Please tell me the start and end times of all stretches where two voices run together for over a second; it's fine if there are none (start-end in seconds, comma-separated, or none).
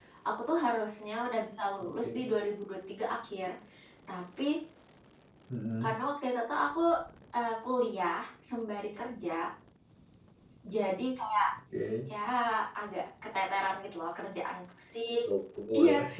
none